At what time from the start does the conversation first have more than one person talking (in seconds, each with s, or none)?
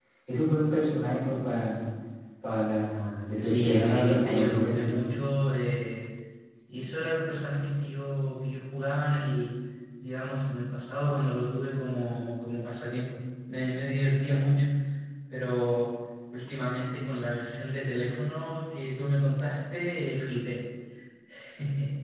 3.4 s